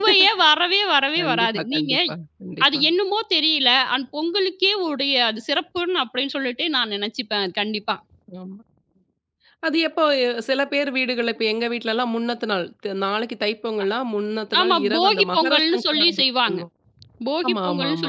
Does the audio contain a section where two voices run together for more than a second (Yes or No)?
Yes